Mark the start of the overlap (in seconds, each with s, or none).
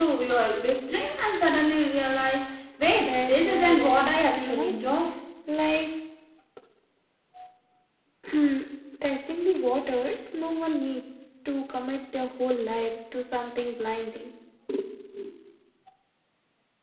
3.0 s